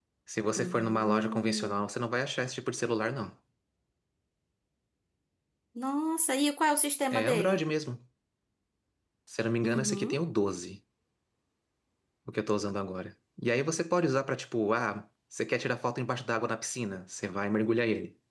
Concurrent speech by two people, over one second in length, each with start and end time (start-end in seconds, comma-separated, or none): 0.6-1.9